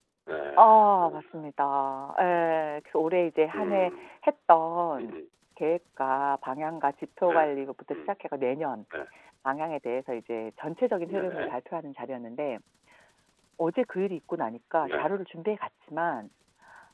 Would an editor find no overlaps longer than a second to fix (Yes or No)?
Yes